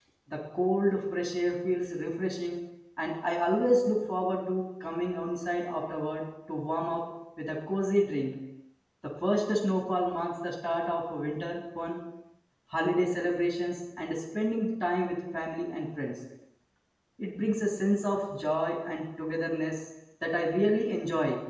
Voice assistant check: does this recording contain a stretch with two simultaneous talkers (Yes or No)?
No